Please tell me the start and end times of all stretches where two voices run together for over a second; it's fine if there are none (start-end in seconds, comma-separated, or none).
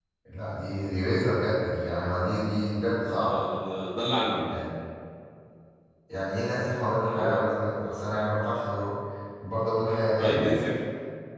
none